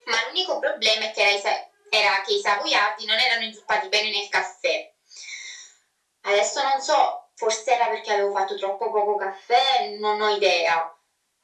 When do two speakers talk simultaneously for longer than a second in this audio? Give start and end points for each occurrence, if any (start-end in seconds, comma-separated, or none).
none